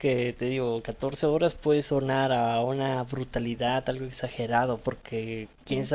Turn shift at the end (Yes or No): No